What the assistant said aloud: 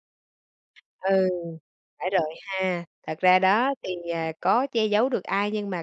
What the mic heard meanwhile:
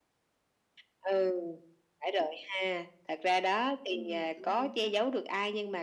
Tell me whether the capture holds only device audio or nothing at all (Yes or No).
No